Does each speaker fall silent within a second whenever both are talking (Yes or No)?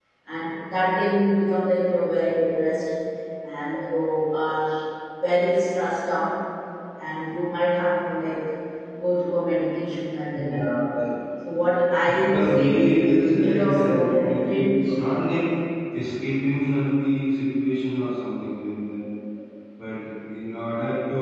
No